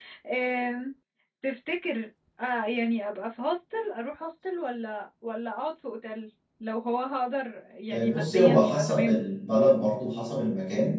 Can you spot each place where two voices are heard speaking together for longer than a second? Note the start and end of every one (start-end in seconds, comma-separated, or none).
7.9-9.2